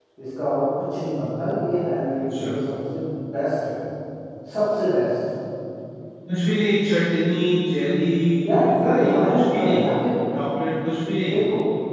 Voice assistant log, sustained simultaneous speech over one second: present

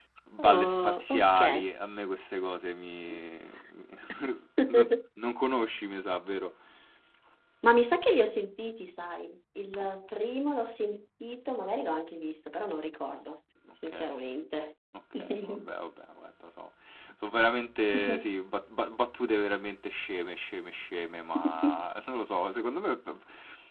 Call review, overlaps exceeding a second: present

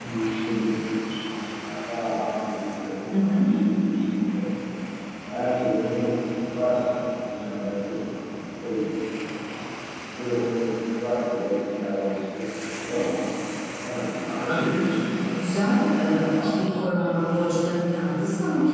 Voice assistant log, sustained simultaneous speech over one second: present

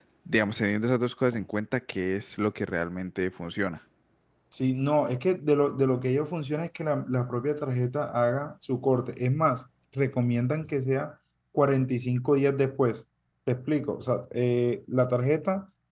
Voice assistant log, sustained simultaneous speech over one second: none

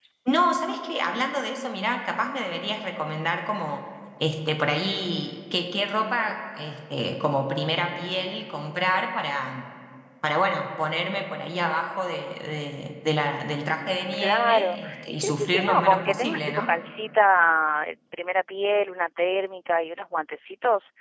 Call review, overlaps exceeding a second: present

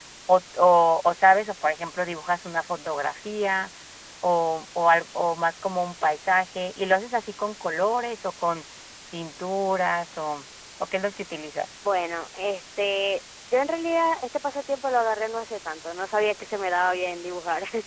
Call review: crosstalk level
none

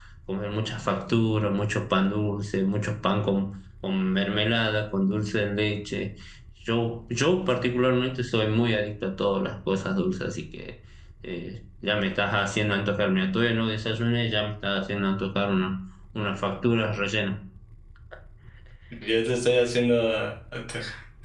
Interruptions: none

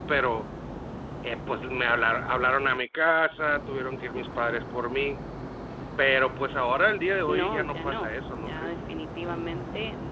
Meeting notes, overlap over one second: present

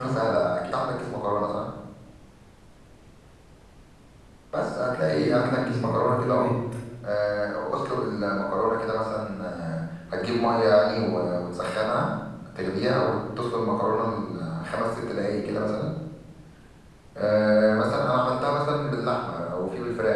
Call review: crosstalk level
present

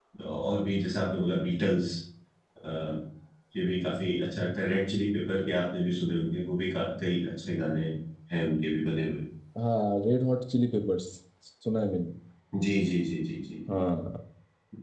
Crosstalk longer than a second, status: none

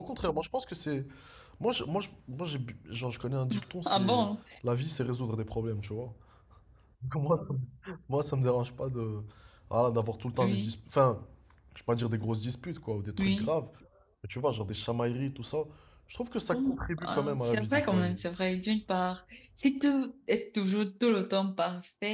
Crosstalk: present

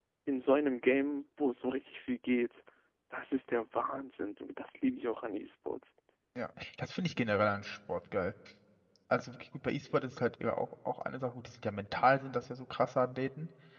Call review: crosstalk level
none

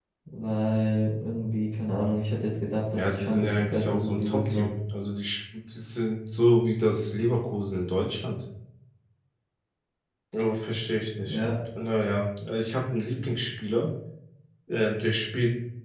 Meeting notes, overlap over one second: present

